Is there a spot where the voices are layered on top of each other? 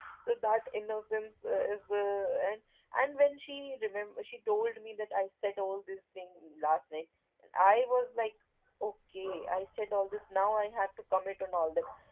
No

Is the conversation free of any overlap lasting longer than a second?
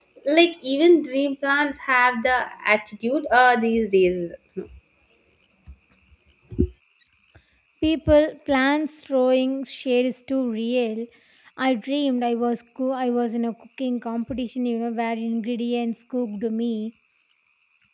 Yes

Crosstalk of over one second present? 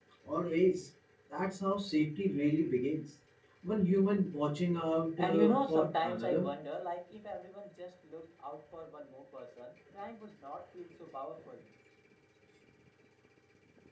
Yes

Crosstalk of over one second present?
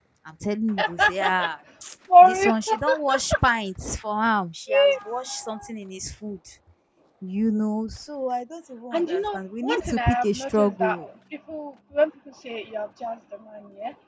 Yes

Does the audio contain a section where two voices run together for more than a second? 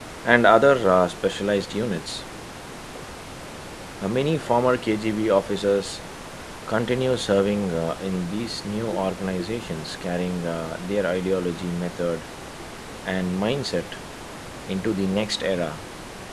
No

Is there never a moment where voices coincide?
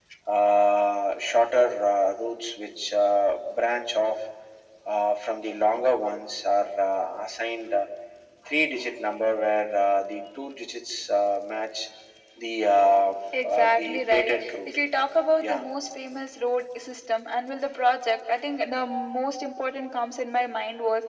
No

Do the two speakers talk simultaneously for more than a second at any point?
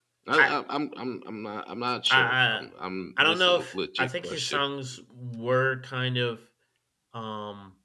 Yes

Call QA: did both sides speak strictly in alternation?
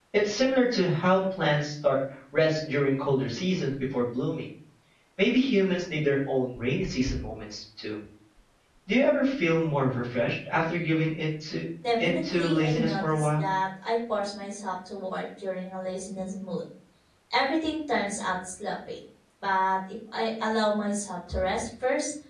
No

